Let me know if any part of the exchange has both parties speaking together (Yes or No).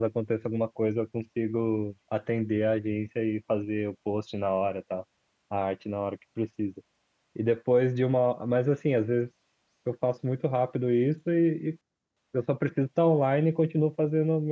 No